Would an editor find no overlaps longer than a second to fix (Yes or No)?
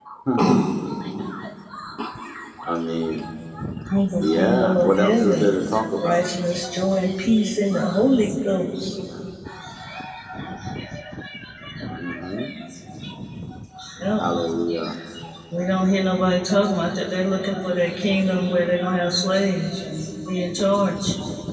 No